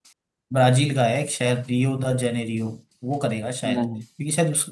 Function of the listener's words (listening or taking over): listening